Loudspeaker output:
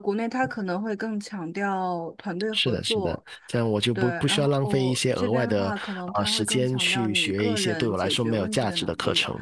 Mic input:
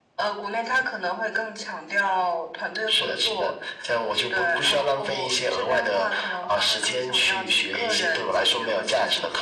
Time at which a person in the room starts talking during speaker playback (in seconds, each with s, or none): none